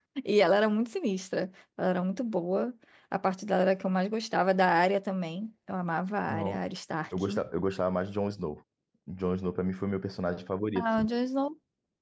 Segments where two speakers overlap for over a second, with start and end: none

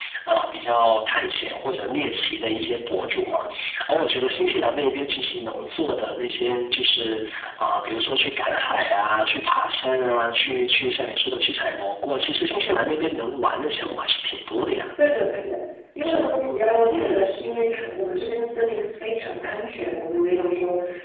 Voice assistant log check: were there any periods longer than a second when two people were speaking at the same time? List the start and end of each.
none

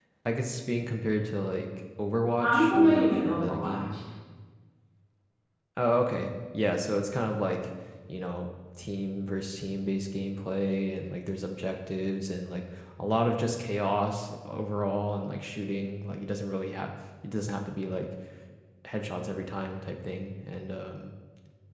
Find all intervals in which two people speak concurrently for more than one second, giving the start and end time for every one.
2.4-3.8

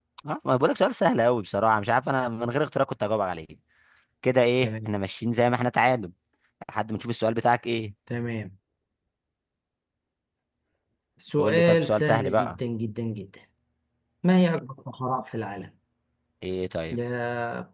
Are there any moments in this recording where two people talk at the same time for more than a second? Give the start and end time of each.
11.4-12.6

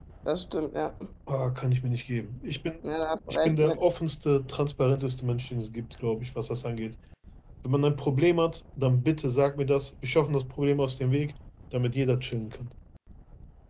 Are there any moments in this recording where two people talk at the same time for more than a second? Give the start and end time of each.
none

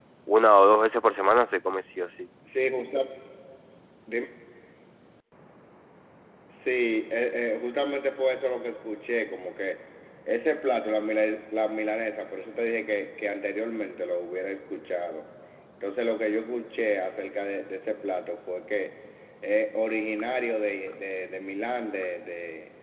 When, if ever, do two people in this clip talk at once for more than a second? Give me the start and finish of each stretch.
none

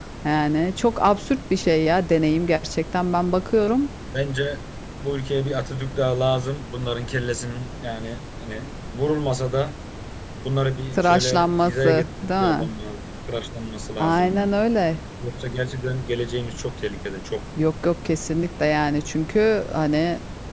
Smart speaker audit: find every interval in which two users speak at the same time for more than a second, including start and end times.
10.9-12.7

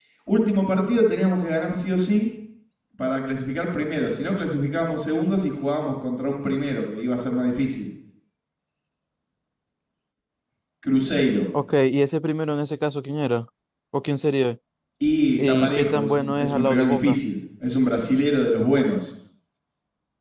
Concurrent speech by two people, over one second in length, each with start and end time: 15.4-17.2

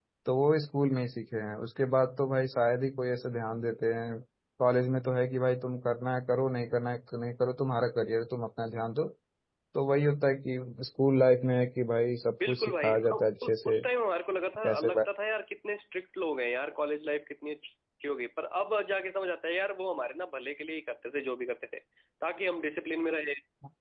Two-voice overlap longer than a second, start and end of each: 12.5-13.8

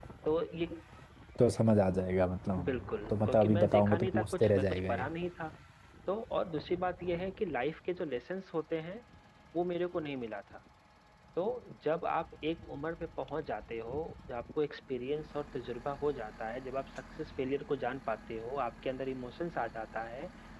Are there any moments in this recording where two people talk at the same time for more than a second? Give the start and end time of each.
2.6-5.1

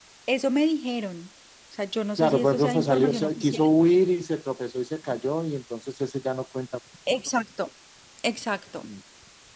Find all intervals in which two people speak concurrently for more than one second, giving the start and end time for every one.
2.2-3.6

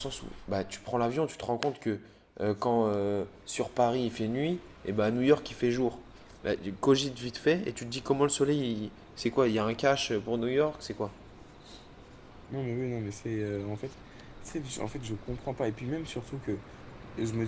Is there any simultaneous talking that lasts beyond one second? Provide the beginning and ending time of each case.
none

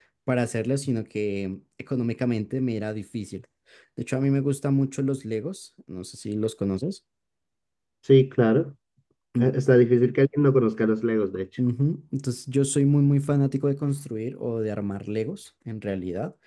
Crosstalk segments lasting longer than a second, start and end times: none

